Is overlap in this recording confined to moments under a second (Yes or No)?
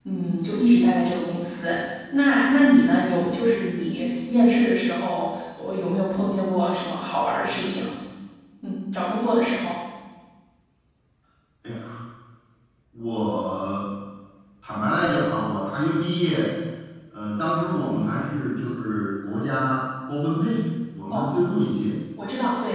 Yes